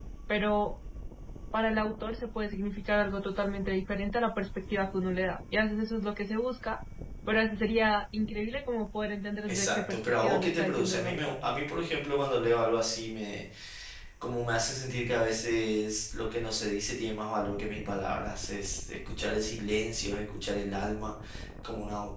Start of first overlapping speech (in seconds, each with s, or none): 9.5 s